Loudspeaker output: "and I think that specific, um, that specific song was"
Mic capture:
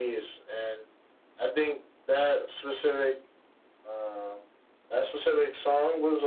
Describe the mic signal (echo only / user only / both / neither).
echo only